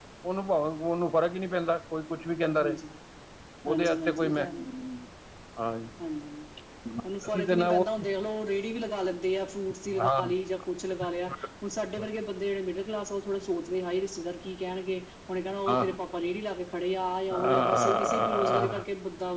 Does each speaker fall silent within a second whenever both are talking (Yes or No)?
No